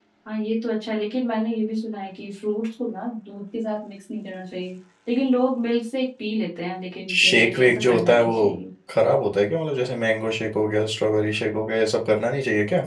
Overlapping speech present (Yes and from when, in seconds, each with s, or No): Yes, from 7.1 s